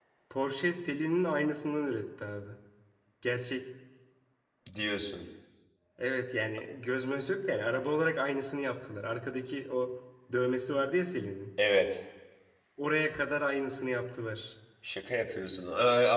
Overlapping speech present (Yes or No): No